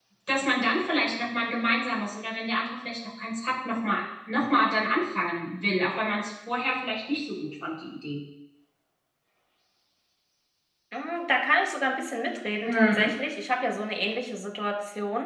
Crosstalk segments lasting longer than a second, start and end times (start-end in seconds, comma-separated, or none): none